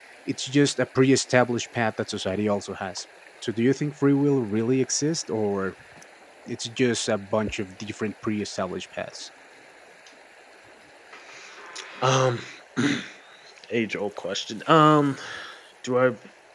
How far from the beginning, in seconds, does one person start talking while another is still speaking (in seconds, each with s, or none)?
none